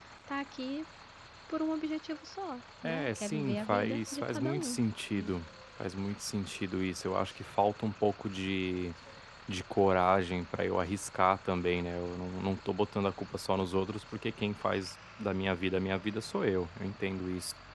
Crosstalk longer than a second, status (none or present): present